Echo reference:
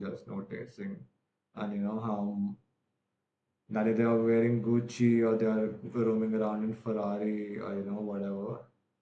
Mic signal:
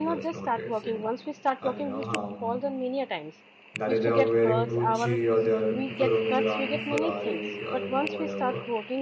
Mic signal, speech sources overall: both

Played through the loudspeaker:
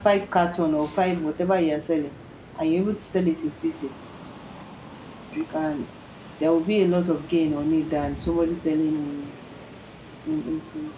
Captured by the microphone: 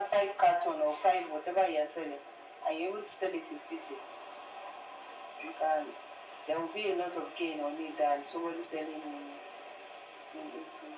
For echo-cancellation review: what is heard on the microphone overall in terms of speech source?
echo only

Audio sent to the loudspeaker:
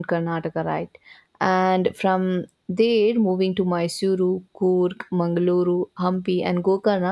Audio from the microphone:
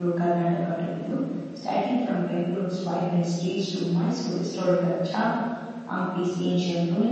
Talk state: user only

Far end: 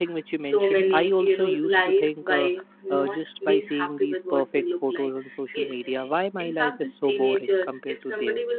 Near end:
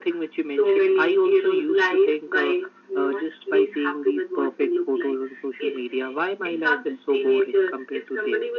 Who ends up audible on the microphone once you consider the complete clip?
echo only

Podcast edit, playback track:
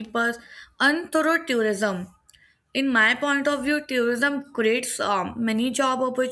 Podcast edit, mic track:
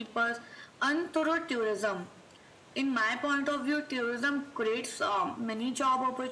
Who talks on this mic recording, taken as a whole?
echo only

